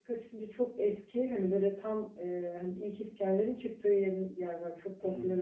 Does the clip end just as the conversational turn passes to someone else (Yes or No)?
No